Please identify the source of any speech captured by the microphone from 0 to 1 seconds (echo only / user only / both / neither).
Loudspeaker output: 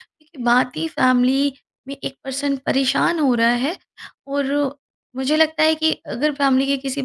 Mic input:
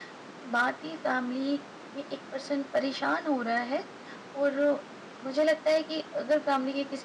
echo only